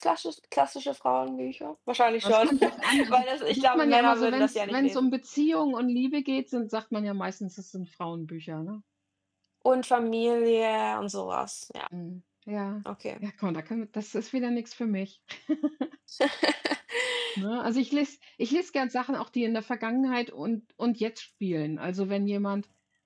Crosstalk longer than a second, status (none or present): present